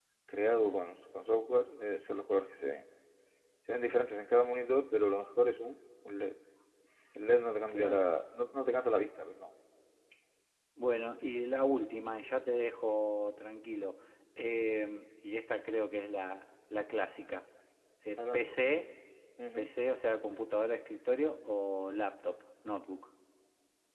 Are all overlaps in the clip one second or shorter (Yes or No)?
Yes